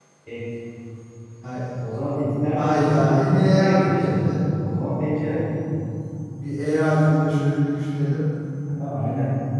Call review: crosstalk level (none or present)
present